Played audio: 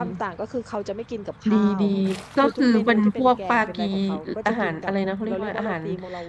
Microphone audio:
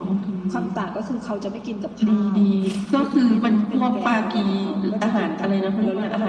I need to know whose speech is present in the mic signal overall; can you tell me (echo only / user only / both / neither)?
echo only